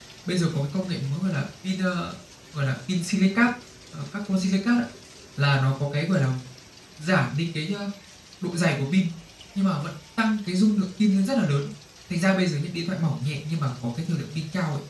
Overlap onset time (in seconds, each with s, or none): none